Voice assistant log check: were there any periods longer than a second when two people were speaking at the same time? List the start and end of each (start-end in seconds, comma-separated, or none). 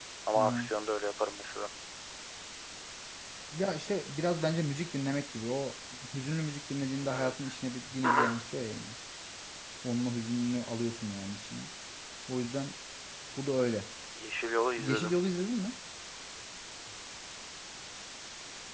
none